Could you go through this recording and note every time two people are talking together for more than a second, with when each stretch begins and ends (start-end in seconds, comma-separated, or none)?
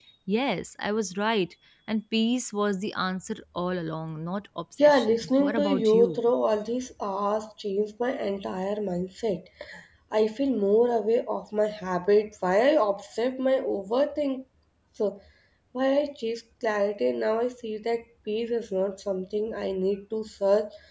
4.8-6.2